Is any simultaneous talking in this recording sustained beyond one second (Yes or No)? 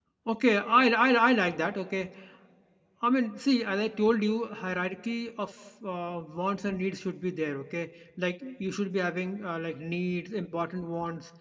No